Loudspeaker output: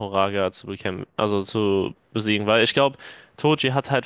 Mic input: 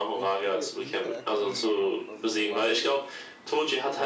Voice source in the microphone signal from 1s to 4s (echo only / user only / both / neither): both